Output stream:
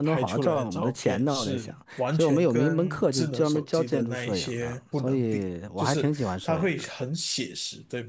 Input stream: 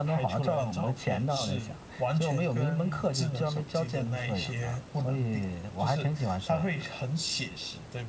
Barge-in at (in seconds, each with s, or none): none